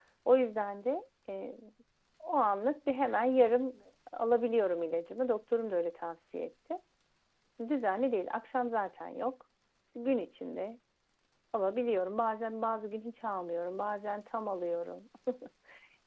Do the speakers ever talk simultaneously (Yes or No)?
No